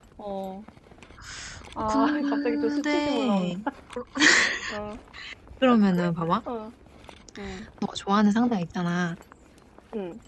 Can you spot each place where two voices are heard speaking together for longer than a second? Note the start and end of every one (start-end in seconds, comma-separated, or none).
1.9-3.6